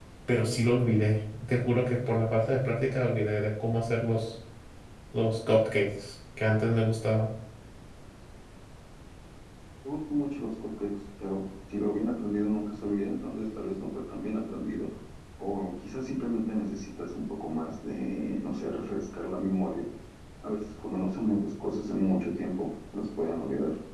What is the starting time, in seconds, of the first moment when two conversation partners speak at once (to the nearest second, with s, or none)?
none